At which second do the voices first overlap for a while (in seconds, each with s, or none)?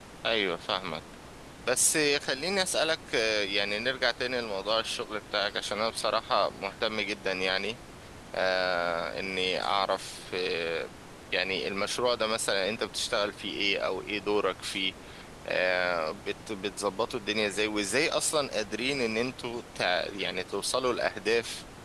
none